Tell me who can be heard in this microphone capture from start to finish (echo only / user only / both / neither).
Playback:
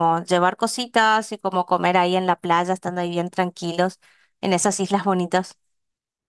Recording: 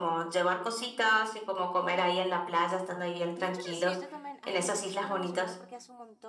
both